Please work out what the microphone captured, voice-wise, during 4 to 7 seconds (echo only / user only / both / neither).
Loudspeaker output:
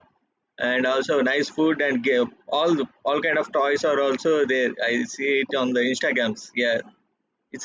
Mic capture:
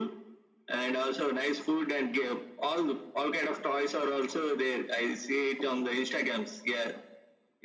echo only